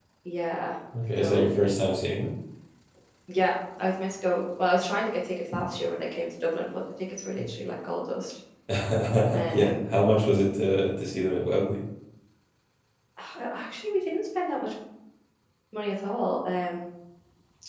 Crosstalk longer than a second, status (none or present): none